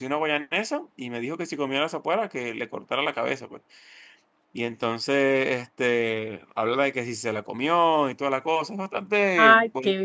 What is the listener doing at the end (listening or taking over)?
taking over